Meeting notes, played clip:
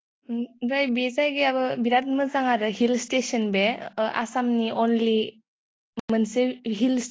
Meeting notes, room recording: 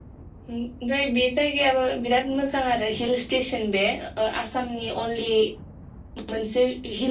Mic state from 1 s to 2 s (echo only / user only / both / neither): echo only